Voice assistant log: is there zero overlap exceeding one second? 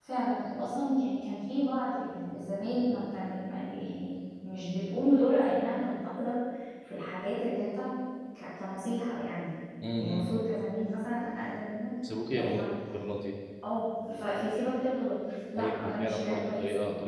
No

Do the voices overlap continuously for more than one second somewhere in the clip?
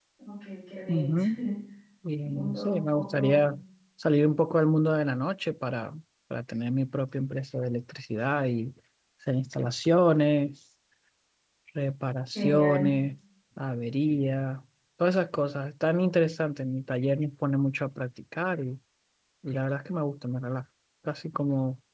Yes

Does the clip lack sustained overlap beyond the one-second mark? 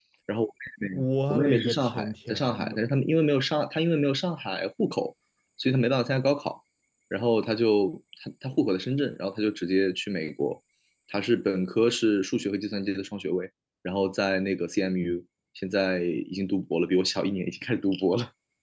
No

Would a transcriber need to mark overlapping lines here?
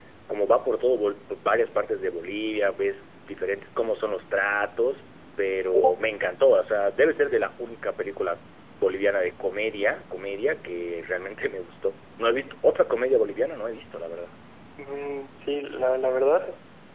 No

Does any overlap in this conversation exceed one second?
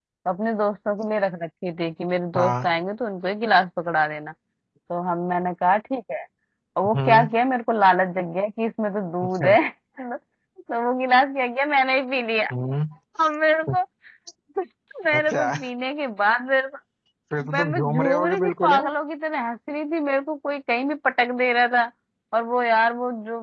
Yes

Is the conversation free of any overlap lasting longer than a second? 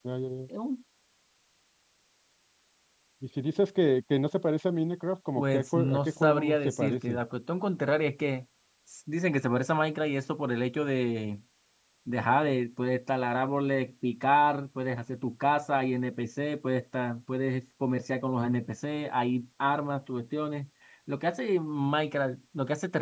No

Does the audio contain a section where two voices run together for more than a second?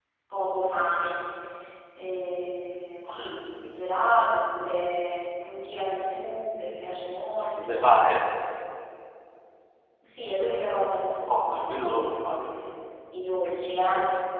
Yes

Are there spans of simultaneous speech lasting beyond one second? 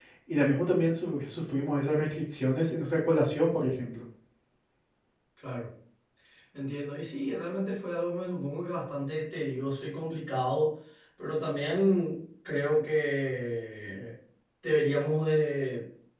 No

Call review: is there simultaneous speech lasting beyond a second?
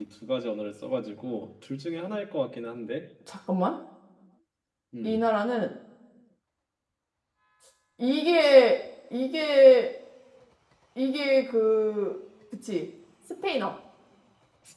No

